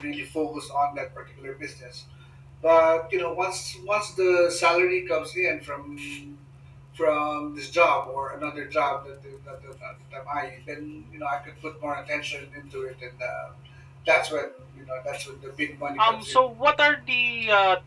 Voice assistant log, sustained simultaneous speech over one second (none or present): none